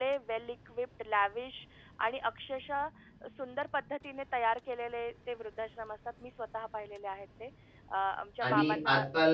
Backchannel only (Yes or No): No